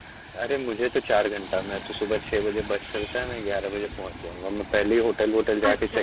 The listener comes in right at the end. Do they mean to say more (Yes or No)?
Yes